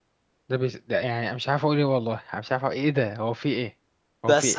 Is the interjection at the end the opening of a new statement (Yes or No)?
Yes